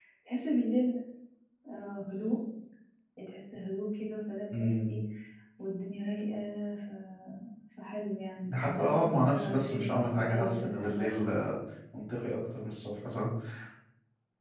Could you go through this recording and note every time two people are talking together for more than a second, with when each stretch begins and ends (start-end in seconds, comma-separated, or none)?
8.5-11.2